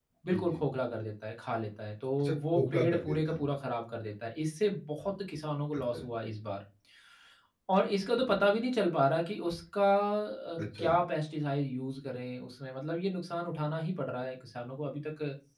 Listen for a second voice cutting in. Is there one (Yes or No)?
Yes